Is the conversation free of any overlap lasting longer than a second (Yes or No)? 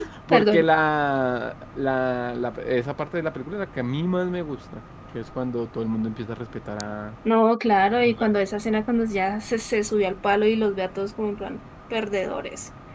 Yes